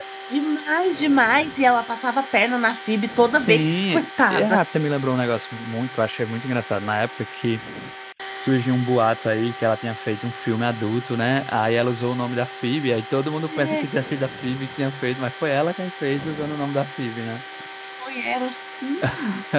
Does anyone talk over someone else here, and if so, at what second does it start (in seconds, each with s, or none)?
3.3 s